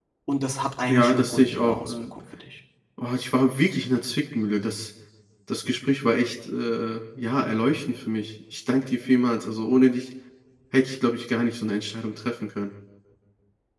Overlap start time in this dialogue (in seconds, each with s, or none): 0.9 s